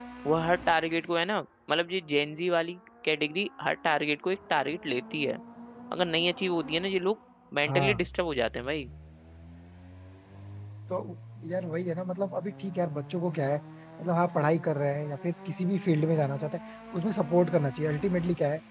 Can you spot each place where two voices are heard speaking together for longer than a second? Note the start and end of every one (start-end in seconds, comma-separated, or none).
none